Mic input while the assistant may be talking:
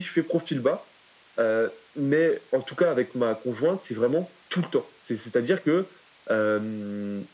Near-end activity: none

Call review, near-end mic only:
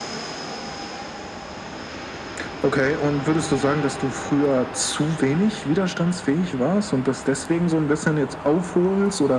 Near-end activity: none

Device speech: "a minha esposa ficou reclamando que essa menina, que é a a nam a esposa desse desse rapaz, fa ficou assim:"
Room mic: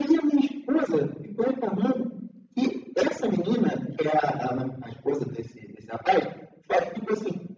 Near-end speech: none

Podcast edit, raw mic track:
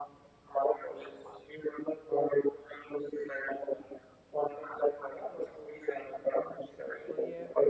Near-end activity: present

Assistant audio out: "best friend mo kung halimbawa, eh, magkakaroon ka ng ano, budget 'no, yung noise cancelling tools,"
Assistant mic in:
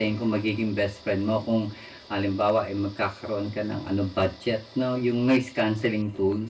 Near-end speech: none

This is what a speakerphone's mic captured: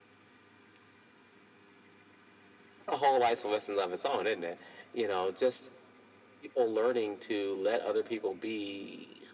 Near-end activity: none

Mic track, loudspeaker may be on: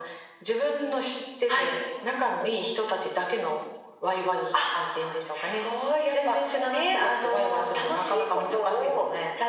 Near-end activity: none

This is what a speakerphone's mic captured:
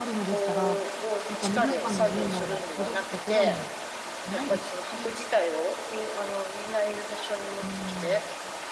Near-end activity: present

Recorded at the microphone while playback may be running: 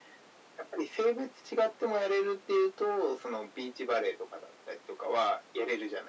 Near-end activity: none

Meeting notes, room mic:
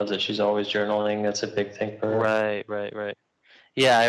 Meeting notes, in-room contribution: present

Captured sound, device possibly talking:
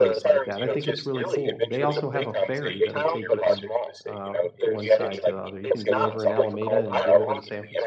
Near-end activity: present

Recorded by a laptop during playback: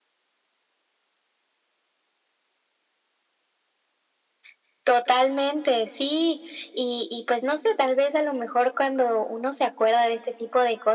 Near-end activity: none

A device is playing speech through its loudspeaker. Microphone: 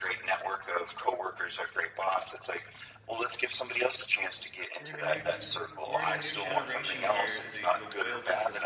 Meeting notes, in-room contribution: present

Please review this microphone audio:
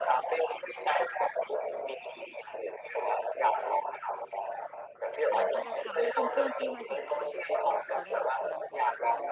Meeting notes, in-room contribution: present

